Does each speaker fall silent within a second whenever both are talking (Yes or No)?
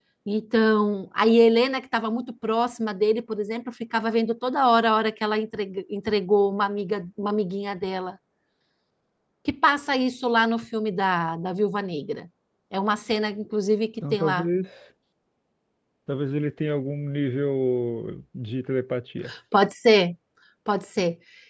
Yes